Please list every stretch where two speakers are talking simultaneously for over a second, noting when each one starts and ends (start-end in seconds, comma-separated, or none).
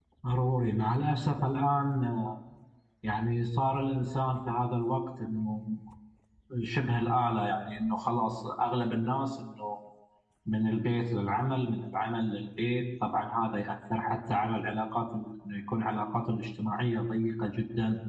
none